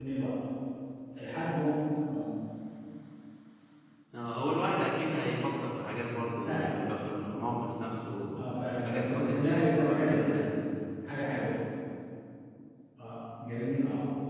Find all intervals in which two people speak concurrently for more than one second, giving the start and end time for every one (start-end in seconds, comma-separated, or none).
8.8-10.5